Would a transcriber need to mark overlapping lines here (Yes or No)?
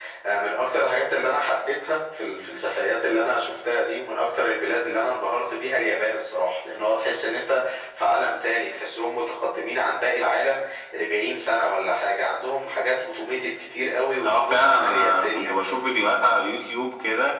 Yes